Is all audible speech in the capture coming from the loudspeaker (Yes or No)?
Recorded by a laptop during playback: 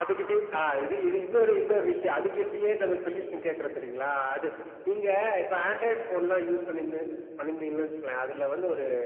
Yes